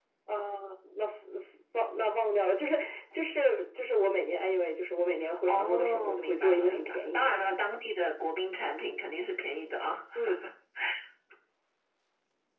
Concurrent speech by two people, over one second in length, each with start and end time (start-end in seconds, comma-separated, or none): 5.5-7.2